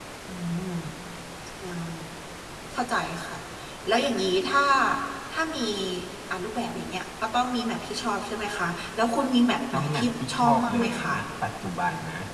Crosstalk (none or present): present